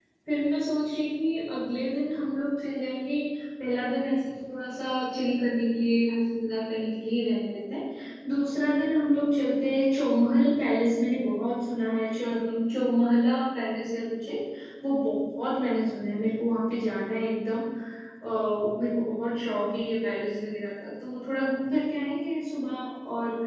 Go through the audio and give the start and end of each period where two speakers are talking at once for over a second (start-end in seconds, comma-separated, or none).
none